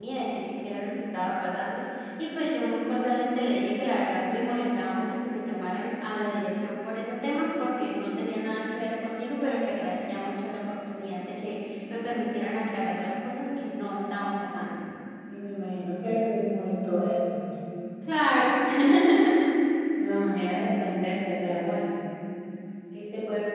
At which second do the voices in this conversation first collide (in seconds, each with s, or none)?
none